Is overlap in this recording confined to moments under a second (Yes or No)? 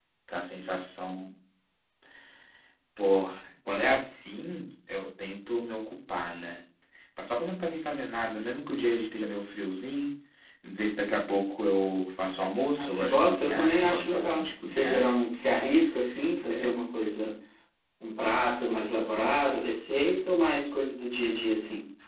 No